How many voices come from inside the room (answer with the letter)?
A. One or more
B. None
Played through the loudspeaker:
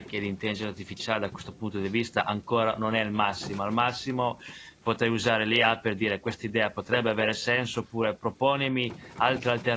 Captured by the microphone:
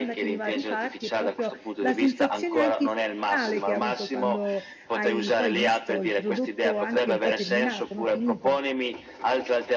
A